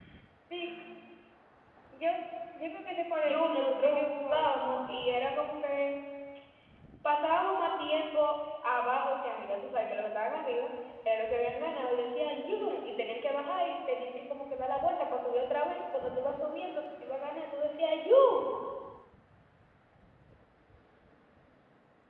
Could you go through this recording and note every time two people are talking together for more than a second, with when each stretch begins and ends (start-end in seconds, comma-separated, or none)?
3.2-4.8